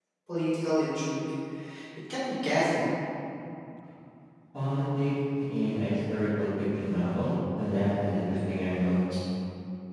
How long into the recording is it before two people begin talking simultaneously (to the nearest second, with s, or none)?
none